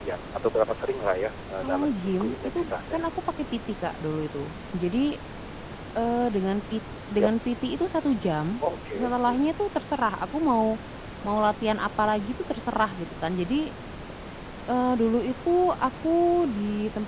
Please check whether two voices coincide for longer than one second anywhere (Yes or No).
Yes